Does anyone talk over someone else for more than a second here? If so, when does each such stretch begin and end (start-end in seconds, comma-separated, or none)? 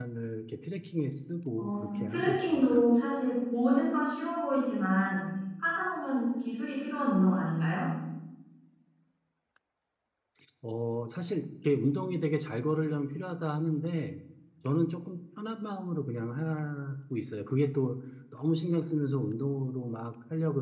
1.6-2.8